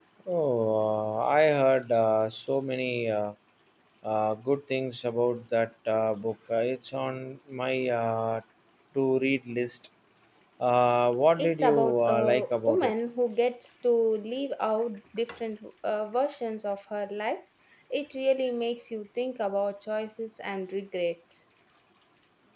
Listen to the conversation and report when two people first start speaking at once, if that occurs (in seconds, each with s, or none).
11.4 s